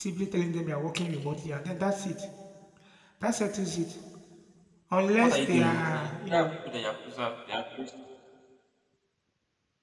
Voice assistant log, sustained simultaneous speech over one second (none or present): present